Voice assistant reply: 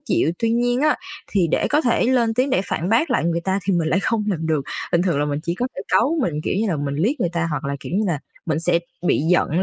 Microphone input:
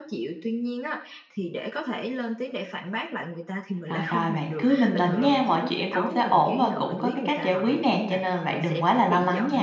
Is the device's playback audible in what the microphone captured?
Yes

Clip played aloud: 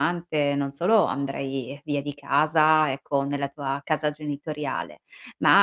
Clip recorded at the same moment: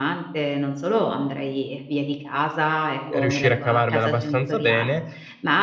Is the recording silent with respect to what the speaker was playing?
No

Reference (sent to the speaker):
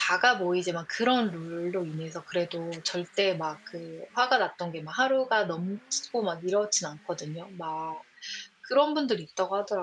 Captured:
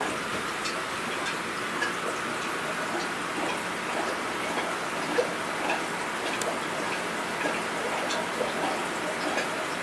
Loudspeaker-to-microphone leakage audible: No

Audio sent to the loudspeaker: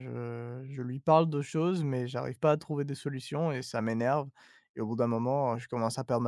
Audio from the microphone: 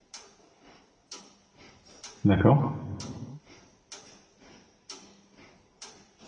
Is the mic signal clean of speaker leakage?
Yes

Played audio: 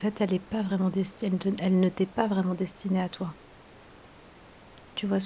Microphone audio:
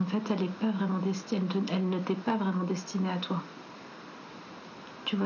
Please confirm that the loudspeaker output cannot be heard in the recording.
No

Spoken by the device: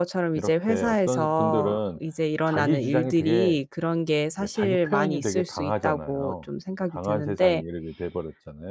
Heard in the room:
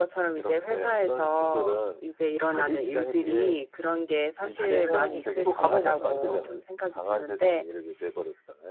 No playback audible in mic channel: No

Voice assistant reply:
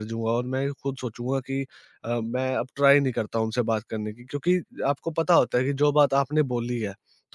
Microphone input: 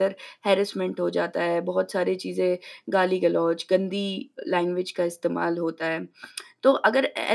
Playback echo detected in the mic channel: No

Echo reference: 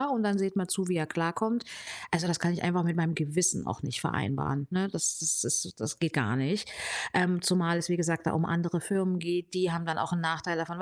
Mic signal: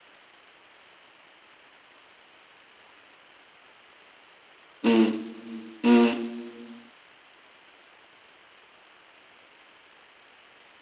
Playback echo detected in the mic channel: No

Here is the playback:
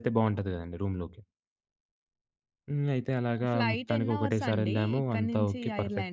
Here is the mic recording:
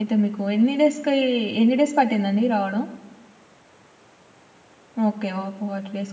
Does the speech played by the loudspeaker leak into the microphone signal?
No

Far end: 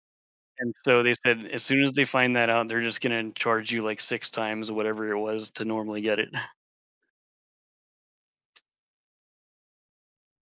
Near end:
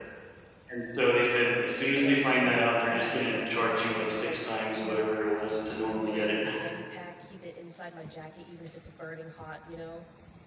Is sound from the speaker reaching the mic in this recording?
Yes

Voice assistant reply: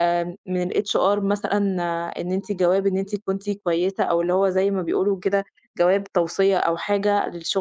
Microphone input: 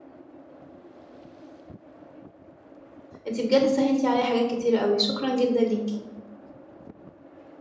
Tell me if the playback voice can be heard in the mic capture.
No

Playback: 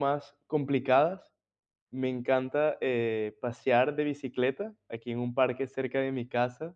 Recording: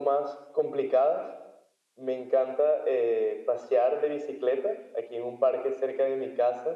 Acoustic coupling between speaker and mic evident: Yes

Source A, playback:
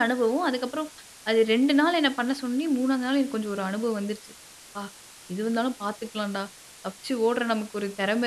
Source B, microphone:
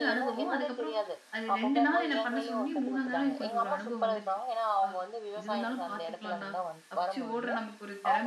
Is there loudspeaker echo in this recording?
Yes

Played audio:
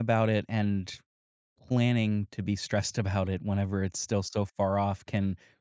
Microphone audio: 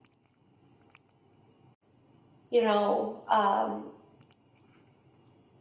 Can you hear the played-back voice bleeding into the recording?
No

